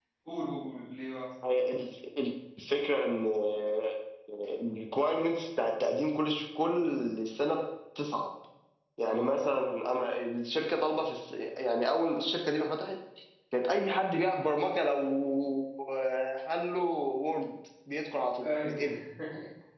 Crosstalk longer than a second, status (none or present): none